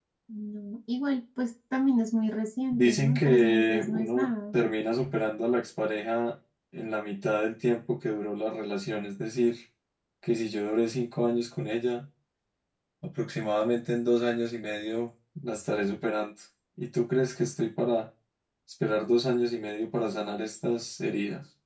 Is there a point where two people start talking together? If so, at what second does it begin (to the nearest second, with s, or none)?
3 s